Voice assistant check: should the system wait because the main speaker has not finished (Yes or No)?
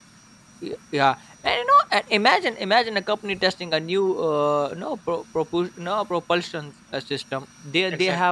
Yes